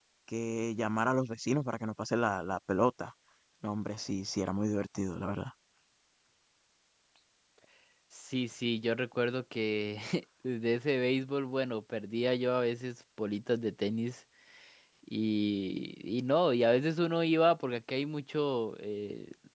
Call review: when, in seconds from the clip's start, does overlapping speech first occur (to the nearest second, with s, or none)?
none